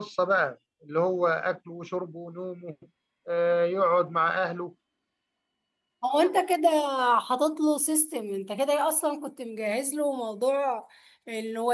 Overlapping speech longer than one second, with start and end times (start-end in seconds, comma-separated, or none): none